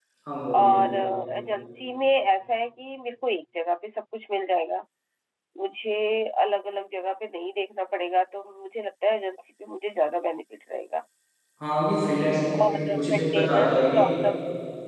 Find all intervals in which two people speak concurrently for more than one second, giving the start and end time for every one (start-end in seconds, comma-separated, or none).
12.7-14.0